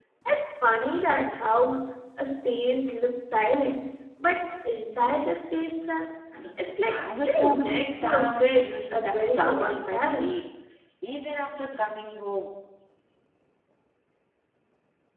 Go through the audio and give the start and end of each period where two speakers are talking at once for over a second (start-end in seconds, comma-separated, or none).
6.8-10.3